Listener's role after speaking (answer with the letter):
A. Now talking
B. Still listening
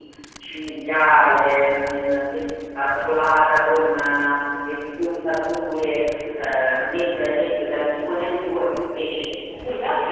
A